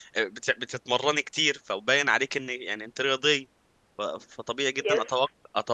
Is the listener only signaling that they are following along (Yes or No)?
Yes